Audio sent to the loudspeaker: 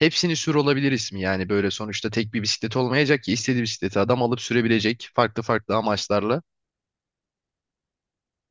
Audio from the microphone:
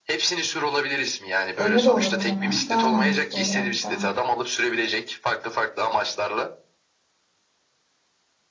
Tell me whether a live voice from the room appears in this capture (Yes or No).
Yes